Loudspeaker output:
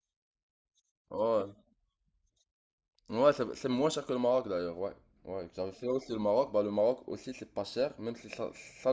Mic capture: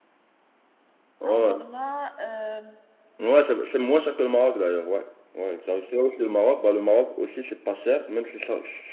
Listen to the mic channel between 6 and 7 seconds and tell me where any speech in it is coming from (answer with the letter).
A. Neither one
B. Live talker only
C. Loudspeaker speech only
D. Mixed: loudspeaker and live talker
C